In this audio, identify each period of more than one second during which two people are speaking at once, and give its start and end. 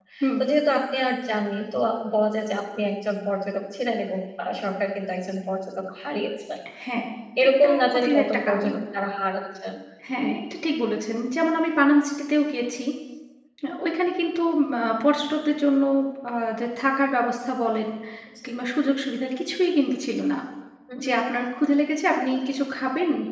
7.5-8.7

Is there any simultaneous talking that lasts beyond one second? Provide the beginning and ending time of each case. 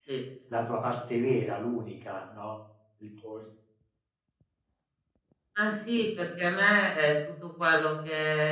none

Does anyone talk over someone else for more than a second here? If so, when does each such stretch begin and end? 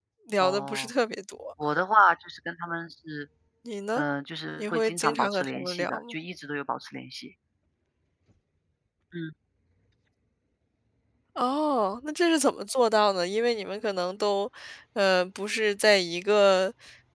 4.6-6.1

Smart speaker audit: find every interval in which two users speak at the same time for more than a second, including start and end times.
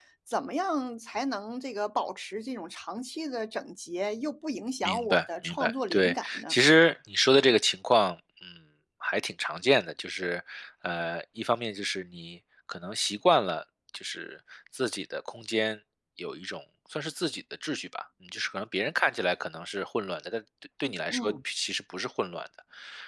4.8-6.5

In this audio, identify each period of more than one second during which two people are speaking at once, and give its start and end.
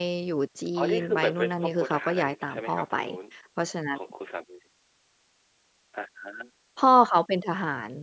0.8-2.9

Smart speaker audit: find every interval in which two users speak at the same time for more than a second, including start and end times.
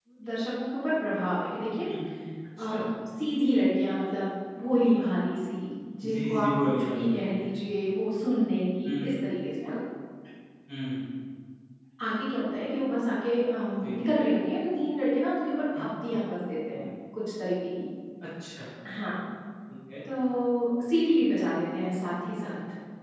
6.0-7.5

